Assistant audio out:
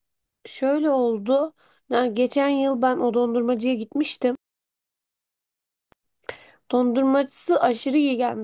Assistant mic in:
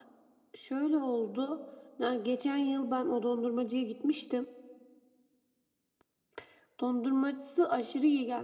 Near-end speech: none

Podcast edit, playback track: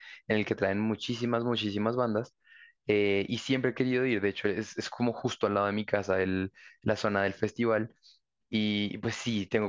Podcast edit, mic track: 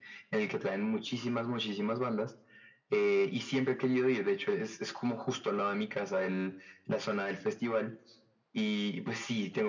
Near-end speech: none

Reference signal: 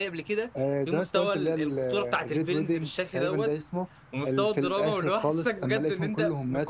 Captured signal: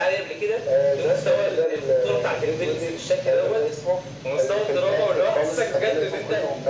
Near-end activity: none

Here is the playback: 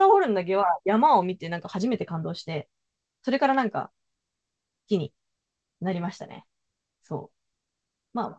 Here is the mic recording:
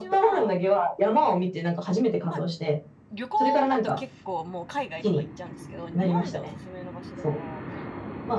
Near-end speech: present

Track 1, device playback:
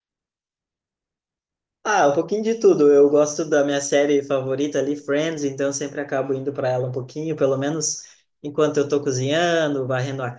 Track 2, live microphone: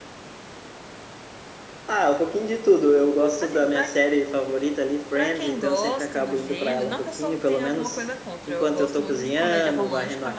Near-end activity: present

